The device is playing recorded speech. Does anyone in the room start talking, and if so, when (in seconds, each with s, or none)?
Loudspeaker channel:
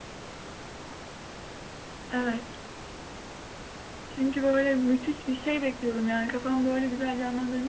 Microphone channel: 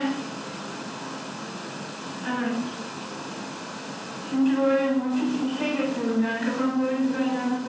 none